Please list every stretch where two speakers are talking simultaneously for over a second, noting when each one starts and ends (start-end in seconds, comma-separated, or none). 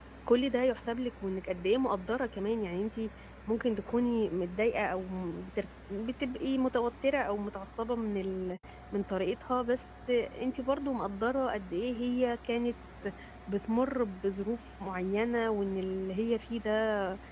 none